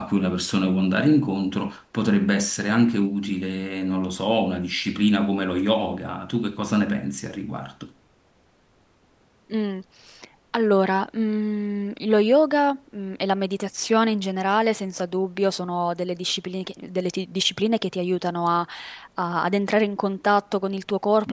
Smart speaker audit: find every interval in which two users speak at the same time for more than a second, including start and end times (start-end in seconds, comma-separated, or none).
none